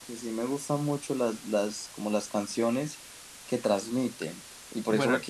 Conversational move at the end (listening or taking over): listening